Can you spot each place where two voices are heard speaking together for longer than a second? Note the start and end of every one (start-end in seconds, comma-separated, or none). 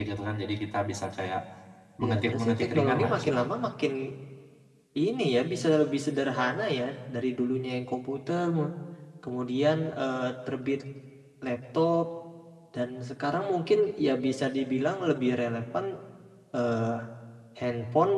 2.1-3.4